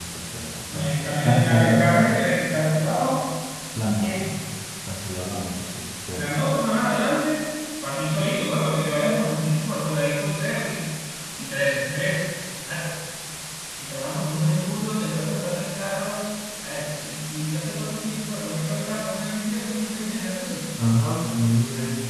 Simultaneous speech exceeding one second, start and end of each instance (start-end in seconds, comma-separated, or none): 0.7-2.0